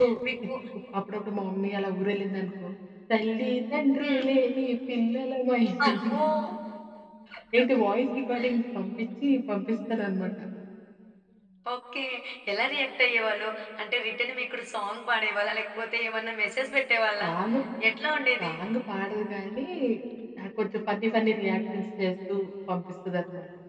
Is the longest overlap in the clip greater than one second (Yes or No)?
No